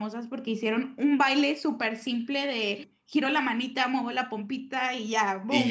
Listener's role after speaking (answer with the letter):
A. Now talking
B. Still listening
A